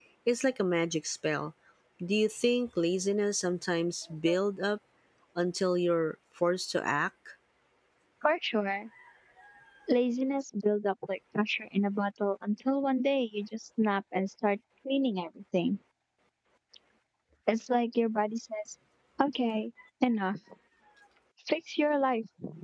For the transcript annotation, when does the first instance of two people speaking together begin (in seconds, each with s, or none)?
none